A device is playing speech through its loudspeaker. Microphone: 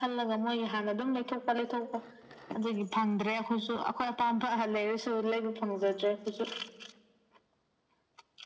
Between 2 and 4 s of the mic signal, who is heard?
echo only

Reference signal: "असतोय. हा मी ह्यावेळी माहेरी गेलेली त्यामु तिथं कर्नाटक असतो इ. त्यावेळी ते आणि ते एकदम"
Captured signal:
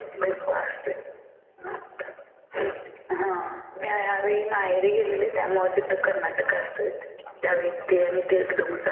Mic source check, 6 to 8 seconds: both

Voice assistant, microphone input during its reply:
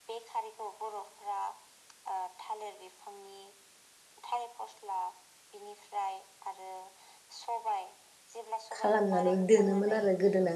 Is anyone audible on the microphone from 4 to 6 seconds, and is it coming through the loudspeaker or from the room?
echo only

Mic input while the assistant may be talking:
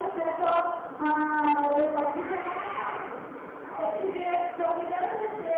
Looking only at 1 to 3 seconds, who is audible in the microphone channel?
echo only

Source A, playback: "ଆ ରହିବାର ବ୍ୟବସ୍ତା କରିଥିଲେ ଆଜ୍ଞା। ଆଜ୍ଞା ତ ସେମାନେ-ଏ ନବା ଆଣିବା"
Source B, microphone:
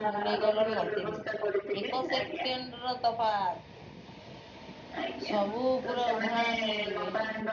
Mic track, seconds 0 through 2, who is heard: both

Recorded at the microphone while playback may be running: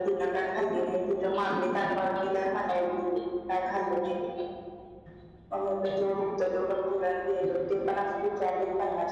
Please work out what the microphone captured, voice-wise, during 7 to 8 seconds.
echo only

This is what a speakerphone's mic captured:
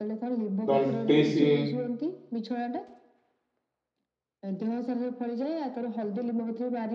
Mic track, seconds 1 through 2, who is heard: both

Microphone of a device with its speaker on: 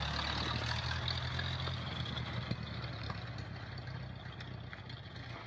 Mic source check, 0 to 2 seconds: neither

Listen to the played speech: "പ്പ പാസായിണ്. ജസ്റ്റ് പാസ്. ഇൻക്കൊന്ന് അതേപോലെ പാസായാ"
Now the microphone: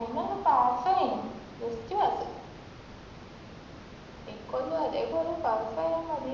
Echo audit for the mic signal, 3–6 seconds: echo only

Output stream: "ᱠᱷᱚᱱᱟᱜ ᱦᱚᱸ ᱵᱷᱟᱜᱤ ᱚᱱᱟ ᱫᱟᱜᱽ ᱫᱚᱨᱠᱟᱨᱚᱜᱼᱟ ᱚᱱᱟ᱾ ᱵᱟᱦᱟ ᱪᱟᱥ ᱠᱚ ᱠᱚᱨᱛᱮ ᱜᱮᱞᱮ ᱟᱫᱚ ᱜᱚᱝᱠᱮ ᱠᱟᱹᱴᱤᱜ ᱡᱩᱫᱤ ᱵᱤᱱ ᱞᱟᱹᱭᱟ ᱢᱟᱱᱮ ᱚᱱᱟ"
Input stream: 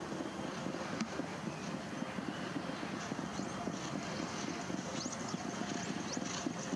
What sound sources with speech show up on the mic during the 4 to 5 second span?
neither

